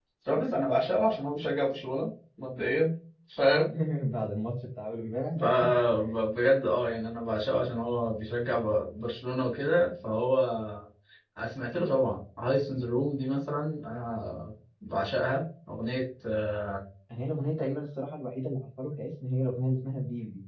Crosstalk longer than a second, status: none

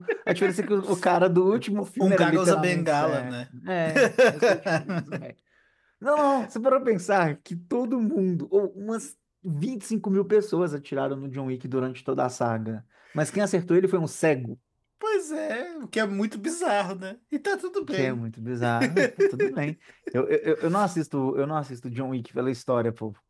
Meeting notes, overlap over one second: present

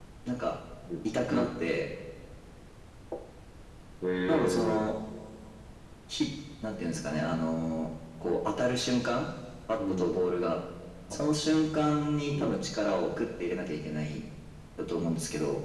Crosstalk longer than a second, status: none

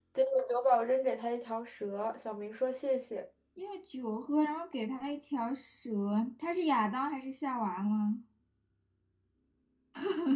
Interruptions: none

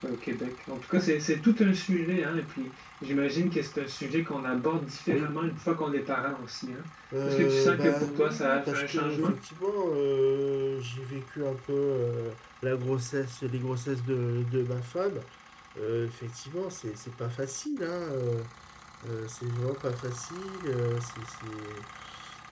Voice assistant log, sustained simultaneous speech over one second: present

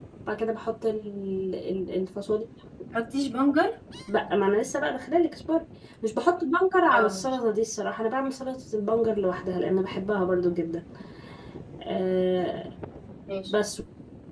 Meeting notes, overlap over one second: none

